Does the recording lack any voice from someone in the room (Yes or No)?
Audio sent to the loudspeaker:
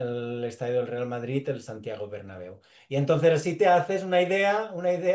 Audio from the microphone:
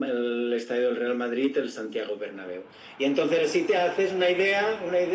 Yes